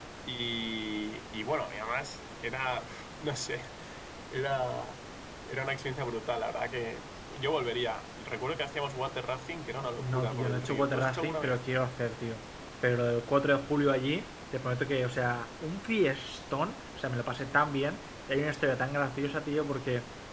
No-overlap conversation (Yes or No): No